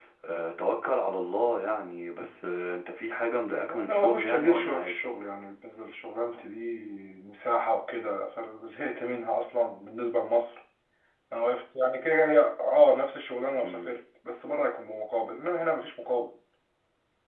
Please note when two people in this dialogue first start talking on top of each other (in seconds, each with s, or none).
3.7 s